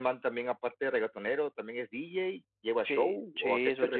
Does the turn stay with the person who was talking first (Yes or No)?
No